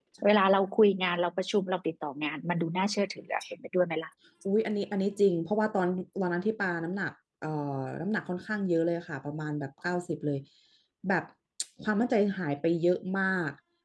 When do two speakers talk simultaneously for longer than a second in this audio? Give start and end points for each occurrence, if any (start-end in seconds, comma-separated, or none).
none